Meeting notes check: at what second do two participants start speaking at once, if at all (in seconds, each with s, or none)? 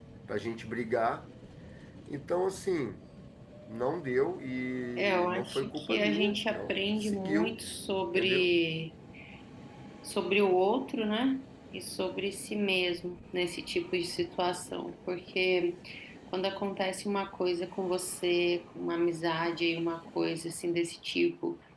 5.0 s